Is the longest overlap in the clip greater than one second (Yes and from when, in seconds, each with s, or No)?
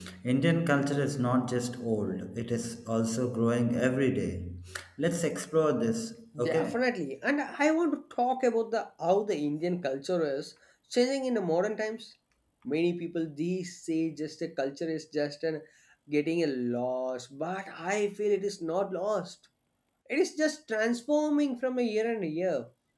No